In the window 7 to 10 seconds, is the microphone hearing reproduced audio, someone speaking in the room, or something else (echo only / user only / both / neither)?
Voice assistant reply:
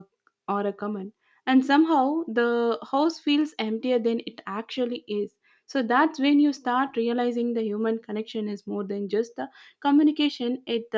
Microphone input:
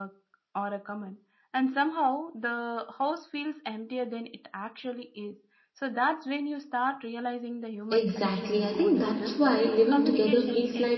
both